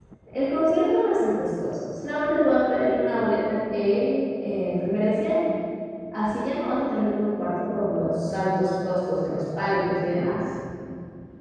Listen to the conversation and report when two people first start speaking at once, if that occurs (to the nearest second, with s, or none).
none